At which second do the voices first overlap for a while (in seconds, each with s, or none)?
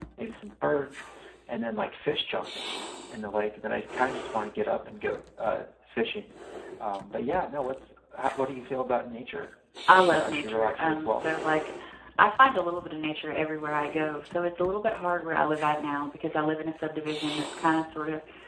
10.0 s